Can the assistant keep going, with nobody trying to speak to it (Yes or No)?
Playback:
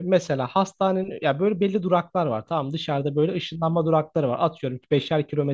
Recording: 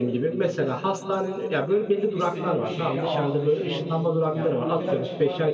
No